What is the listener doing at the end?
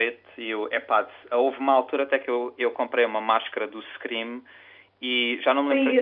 listening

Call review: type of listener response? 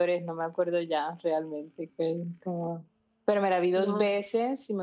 listening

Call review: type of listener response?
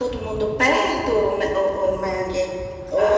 listening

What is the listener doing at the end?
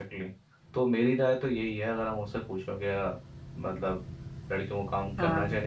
listening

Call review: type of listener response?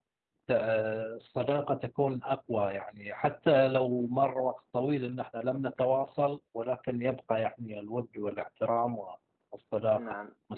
taking over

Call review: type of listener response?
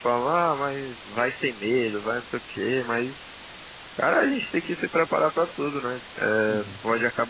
listening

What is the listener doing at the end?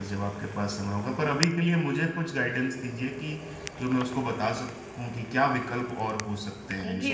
taking over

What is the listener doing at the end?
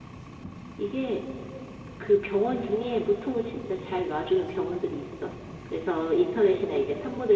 listening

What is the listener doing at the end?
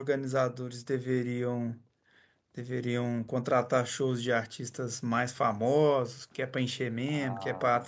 listening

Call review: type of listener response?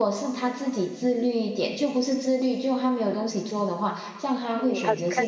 taking over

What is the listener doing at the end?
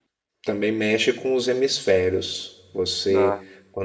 listening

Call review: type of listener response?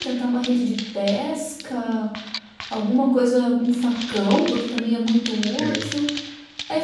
listening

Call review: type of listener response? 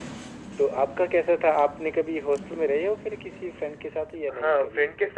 taking over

